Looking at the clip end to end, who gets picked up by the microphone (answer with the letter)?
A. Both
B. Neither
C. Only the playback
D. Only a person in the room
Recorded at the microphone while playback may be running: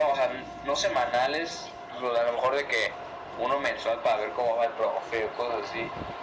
C